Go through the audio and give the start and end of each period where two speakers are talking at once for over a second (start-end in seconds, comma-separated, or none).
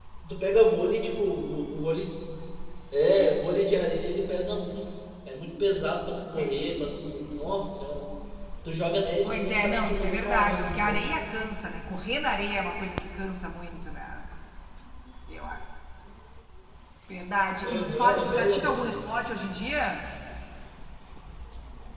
9.2-11.1, 17.6-18.9